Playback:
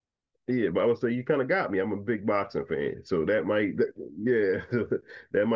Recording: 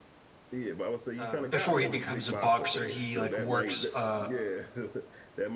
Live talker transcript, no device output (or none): um, before he becomes a boxer, he like works uh,